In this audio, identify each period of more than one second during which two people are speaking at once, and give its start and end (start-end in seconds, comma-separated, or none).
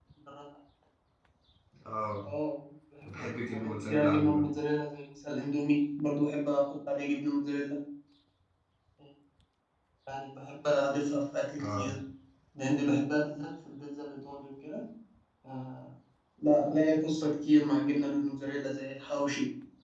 3.0-4.4